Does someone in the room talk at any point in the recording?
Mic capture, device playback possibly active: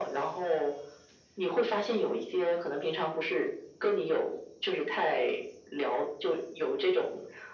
No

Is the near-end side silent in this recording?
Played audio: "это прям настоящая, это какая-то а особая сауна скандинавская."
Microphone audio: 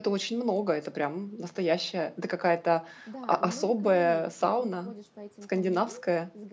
No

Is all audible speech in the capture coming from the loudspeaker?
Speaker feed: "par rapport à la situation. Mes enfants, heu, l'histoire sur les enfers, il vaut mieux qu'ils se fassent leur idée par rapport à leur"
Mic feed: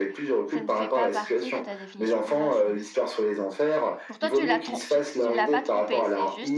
No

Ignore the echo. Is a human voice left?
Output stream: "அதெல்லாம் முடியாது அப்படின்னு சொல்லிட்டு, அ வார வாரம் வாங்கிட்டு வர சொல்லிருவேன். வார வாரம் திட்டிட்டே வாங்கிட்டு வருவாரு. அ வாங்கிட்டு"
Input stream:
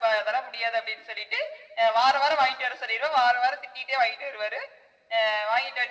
No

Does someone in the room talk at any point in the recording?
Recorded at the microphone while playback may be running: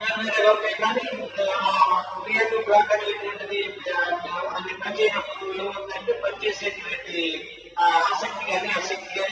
No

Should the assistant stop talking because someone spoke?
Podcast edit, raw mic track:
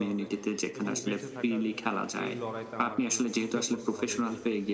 Yes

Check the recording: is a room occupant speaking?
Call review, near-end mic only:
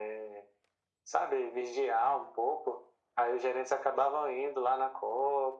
No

